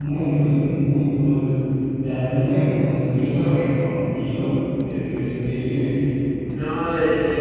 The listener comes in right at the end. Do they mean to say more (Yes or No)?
Yes